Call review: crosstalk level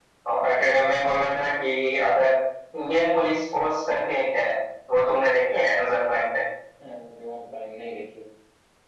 none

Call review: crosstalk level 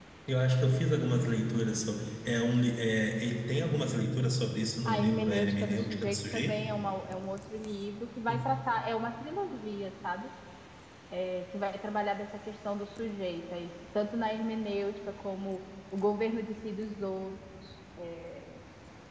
present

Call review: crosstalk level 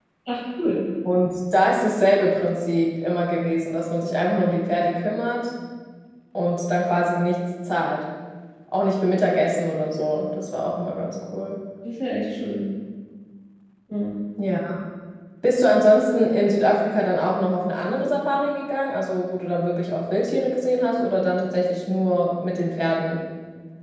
none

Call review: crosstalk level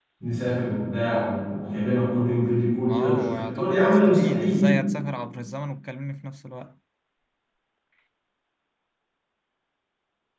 present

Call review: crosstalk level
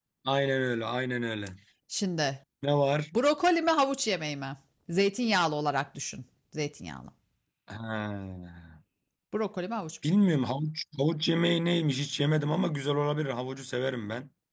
none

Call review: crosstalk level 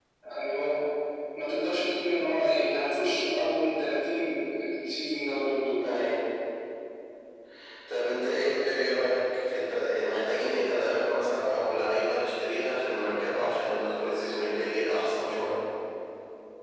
none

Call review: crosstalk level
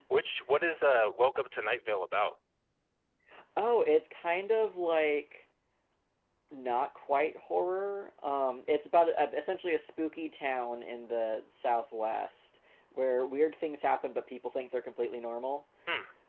none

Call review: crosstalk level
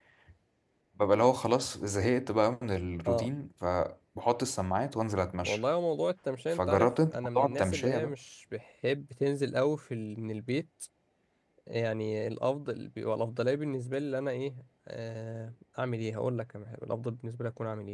present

